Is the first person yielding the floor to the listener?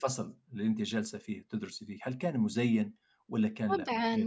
Yes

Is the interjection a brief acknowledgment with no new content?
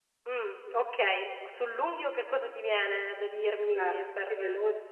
No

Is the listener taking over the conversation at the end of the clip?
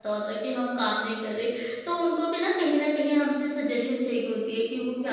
No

